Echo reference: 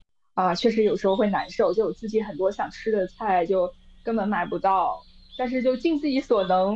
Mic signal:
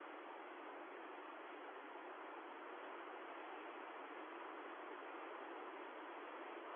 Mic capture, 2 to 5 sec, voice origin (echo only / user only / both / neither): neither